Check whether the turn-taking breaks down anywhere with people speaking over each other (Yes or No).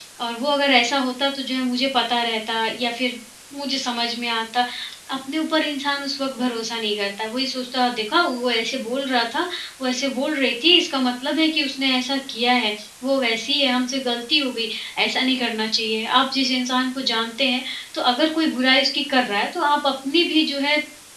No